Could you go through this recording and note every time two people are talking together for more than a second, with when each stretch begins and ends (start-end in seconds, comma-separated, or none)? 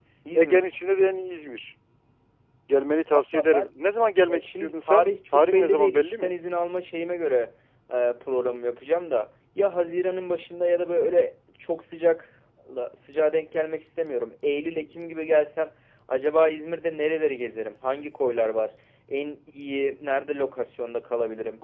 4.3-6.3